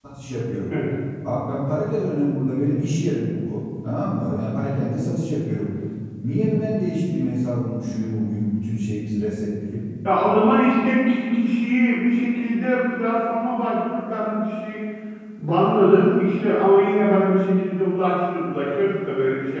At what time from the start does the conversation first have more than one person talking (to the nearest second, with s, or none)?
none